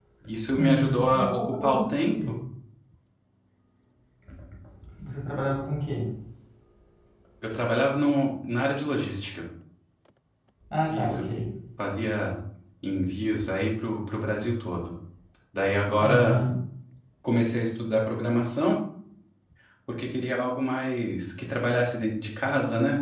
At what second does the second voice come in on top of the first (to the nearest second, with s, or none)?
1 s